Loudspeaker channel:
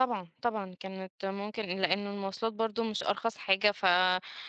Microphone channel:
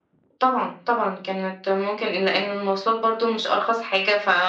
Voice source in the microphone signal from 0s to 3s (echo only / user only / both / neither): echo only